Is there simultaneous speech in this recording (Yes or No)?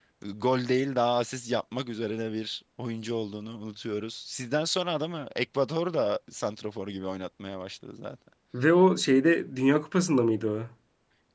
No